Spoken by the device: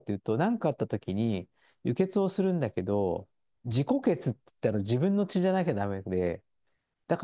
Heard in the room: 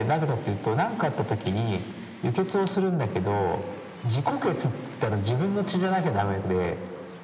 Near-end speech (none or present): none